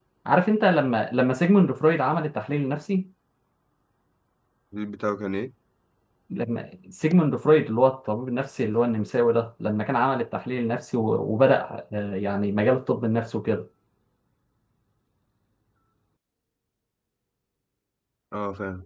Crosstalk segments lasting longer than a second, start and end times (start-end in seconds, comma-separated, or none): none